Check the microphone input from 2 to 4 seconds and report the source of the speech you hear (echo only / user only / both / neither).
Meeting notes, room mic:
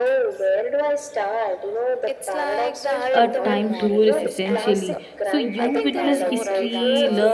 both